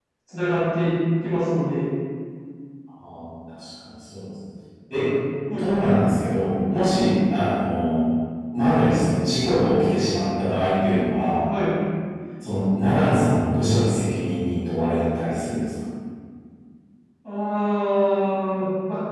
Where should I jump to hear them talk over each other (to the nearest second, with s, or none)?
none